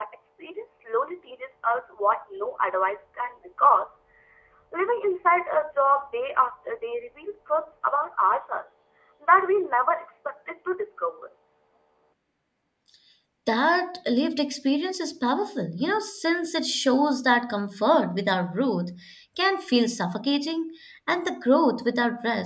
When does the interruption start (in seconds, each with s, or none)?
none